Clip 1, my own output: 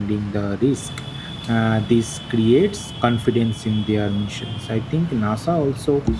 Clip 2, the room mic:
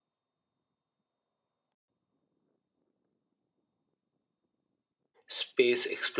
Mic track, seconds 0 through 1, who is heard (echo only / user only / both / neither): neither